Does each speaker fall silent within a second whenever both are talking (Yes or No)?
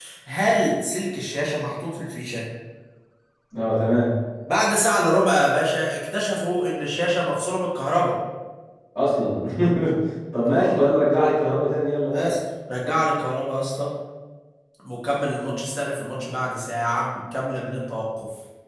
Yes